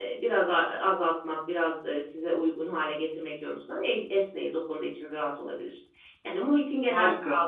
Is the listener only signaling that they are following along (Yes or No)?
Yes